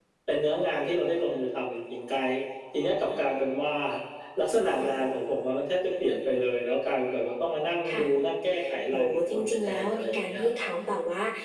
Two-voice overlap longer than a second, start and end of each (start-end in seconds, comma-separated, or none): 8.9-10.7